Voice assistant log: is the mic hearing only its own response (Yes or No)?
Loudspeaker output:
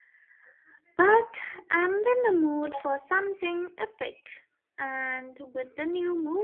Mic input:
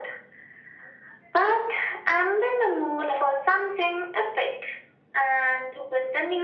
Yes